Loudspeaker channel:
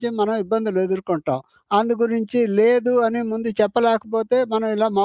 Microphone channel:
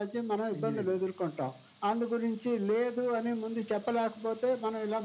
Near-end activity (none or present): present